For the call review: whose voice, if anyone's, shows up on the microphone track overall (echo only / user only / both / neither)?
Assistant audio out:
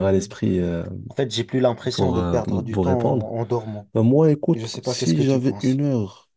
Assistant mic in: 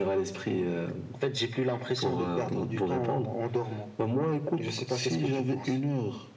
echo only